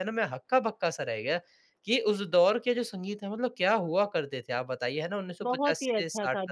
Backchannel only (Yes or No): No